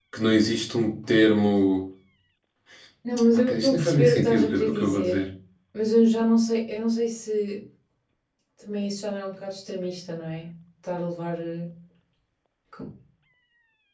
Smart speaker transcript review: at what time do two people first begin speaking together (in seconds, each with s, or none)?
3.3 s